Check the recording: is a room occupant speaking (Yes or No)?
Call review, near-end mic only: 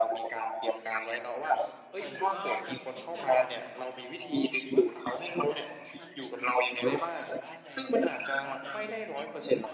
Yes